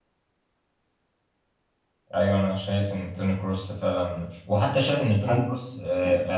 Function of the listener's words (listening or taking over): listening